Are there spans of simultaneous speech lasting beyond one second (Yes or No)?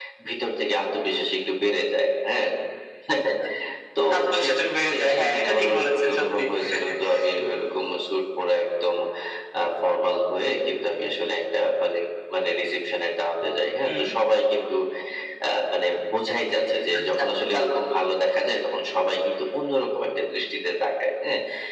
Yes